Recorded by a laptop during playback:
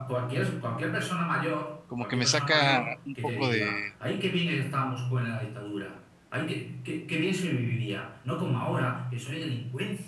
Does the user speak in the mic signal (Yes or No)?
Yes